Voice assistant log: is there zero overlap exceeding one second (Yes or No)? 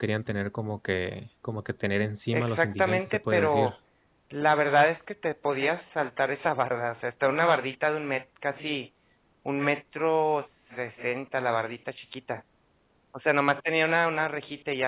No